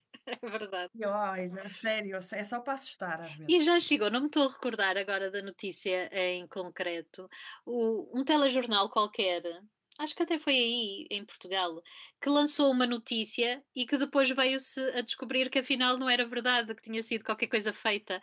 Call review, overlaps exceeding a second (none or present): none